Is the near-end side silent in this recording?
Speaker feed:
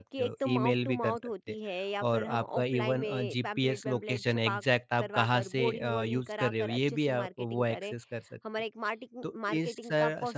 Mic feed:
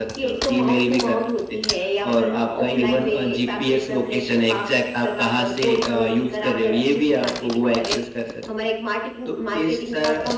Yes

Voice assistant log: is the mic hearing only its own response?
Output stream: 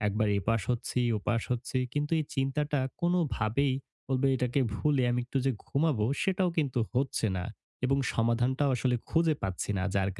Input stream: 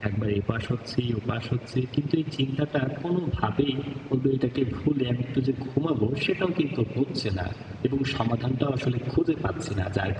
Yes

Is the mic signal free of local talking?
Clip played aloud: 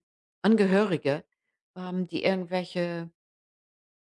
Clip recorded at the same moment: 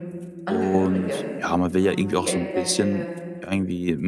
No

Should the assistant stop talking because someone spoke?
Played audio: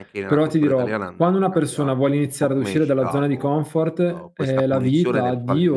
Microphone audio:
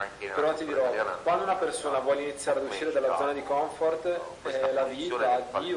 No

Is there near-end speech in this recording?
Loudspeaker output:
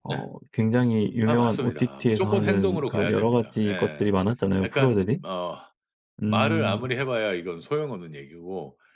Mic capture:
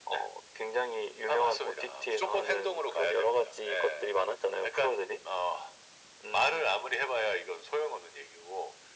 No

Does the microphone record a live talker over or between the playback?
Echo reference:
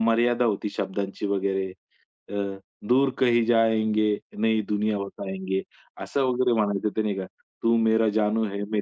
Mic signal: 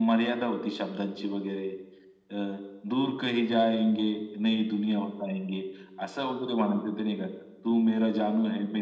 No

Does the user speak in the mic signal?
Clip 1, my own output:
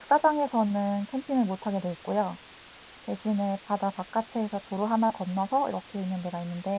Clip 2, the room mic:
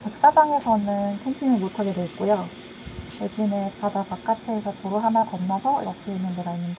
No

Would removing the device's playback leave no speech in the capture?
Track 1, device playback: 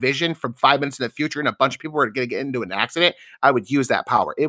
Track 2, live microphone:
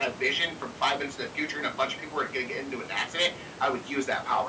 Yes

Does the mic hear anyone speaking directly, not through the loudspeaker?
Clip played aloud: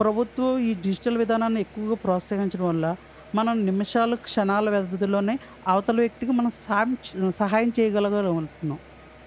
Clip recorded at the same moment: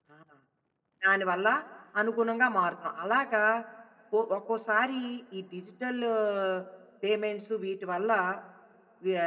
Yes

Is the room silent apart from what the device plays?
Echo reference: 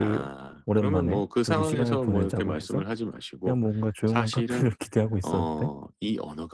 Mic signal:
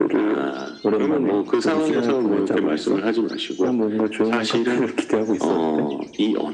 Yes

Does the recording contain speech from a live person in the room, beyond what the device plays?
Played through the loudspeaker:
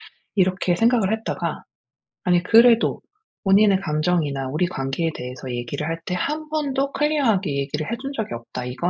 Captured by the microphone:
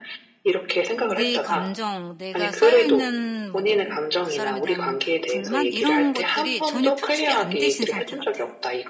Yes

